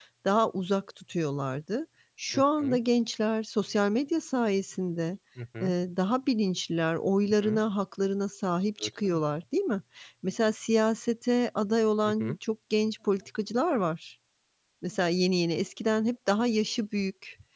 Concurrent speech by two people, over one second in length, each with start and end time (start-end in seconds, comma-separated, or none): none